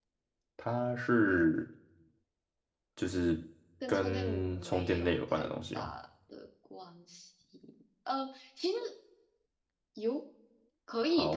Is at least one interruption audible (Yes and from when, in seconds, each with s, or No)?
Yes, from 3.9 s